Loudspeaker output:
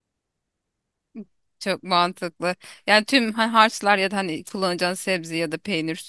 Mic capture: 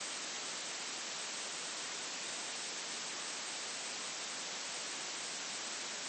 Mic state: neither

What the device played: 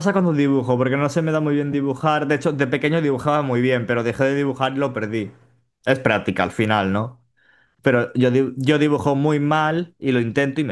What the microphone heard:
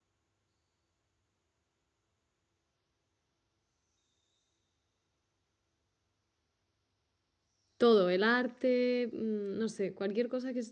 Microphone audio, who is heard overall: user only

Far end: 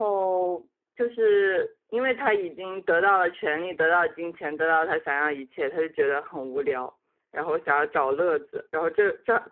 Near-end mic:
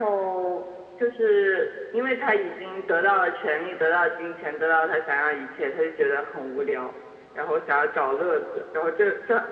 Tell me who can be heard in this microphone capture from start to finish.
echo only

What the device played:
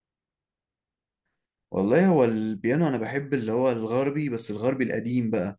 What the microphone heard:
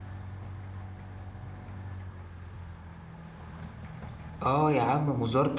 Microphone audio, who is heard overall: user only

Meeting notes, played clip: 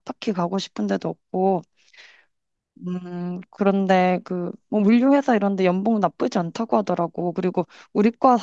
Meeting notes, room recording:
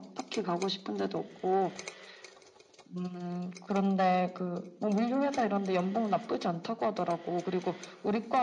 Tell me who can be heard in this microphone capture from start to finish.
echo only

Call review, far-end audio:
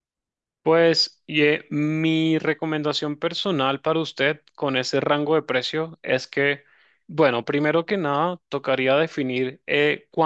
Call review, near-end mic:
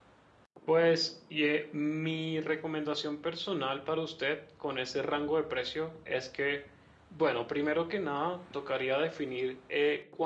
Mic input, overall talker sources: echo only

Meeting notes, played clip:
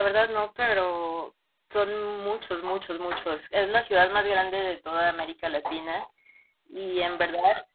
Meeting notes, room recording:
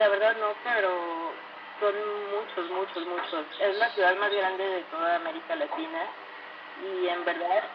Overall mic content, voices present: echo only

